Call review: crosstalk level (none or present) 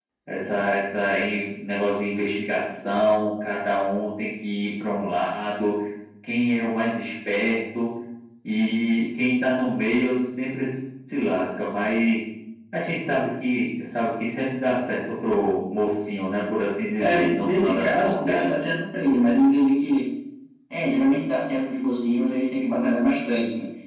present